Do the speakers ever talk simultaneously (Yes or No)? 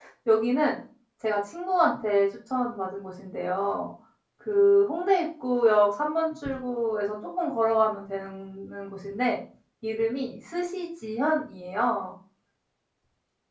No